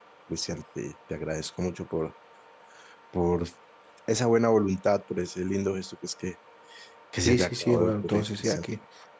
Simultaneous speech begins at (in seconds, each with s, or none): 7.2 s